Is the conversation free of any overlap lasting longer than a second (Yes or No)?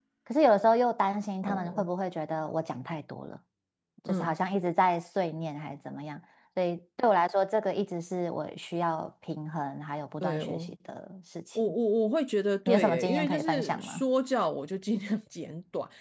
No